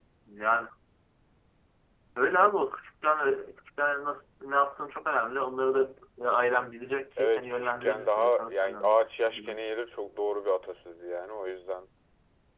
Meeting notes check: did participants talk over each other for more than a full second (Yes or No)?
Yes